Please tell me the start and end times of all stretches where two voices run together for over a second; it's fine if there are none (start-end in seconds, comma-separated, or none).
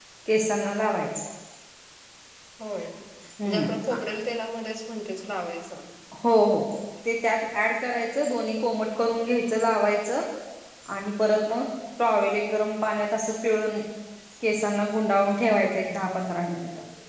none